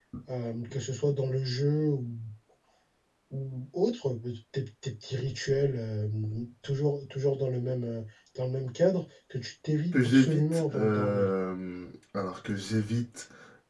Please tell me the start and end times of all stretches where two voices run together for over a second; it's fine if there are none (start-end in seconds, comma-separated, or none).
9.9-11.2